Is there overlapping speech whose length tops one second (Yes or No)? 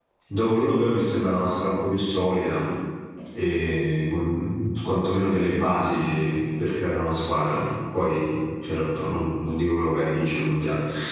No